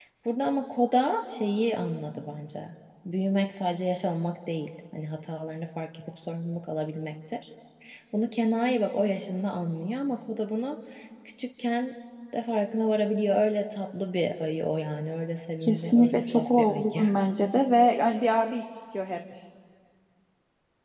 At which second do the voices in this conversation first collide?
15.6 s

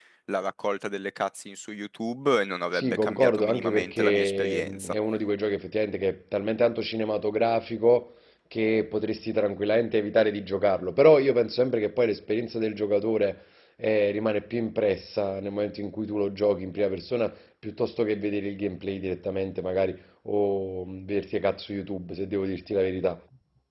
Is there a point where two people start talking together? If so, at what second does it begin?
2.7 s

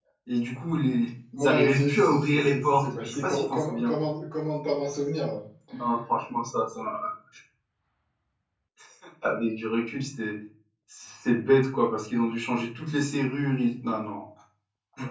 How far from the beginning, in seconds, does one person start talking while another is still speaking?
1.4 s

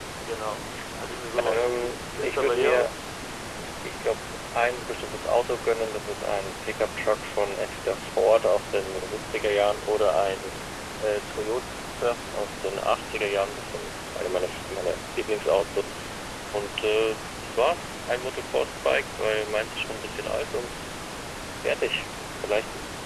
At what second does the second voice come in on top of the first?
1.4 s

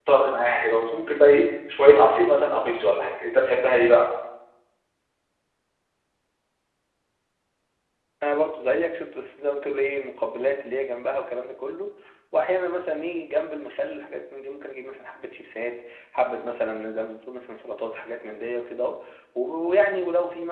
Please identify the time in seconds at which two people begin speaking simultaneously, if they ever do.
none

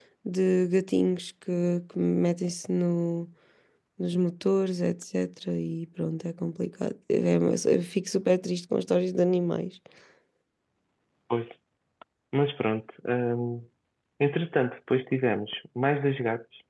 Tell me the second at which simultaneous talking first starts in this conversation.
none

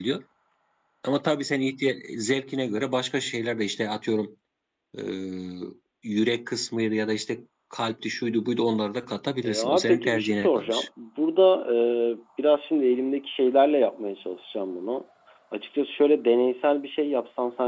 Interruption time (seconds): 9.4 s

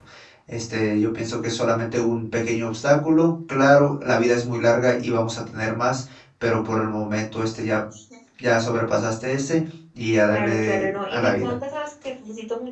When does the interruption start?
10.3 s

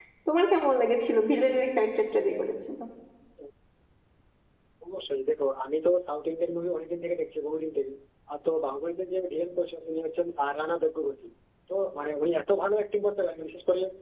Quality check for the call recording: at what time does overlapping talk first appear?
none

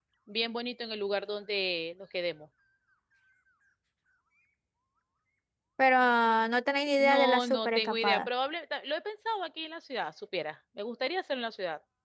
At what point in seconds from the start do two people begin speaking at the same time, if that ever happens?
7.0 s

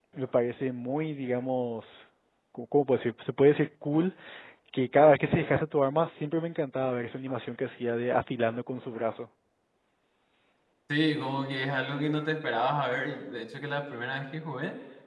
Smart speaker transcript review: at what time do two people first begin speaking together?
none

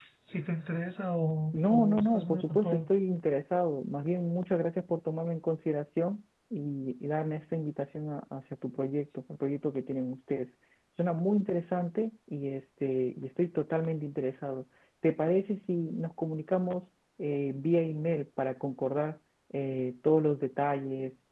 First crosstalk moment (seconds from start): 1.5 s

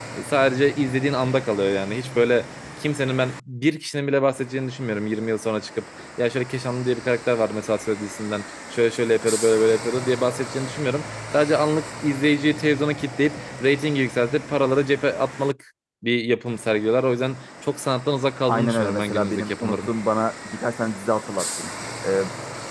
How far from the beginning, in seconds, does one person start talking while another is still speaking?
18.5 s

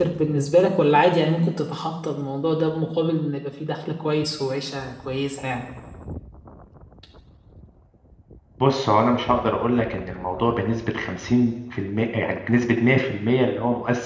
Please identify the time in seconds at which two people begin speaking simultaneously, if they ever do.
none

